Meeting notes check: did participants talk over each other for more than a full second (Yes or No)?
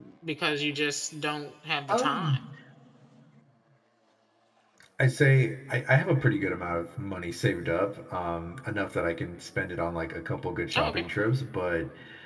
No